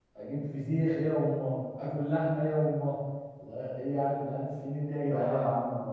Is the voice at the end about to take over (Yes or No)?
Yes